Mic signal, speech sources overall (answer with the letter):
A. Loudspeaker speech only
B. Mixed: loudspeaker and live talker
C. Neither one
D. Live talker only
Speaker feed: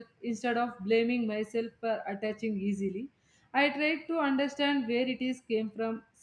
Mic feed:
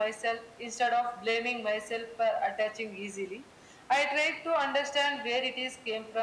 A